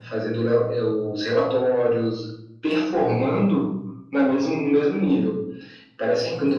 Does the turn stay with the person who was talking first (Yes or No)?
Yes